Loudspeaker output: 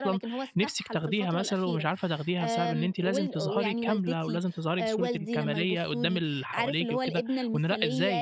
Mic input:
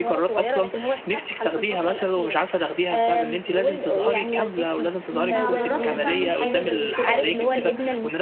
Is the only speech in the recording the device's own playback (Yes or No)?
No